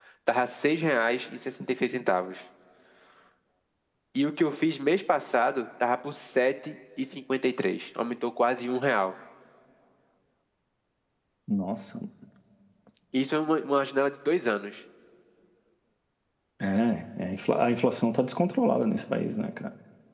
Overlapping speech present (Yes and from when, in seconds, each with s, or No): No